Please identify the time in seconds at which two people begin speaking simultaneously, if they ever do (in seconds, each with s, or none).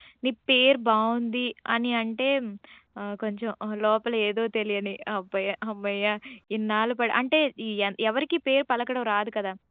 none